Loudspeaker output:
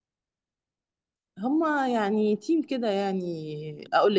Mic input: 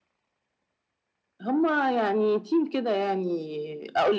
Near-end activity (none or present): none